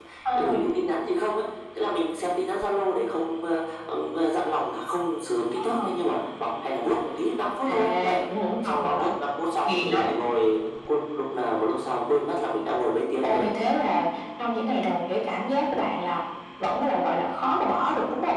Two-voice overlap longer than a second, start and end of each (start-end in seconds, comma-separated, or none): none